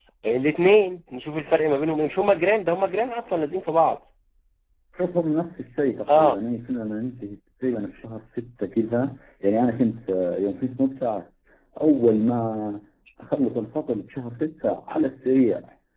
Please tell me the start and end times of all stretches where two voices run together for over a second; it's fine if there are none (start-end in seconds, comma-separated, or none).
none